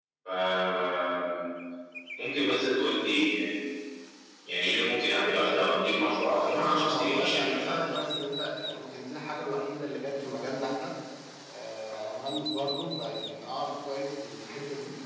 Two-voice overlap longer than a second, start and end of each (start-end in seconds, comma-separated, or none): 6.5-7.9